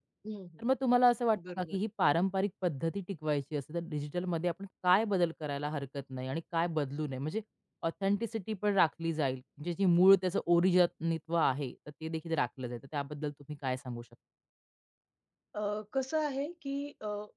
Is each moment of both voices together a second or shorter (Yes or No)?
Yes